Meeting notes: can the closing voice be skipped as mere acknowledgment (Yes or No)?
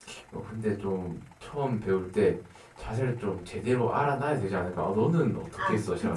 No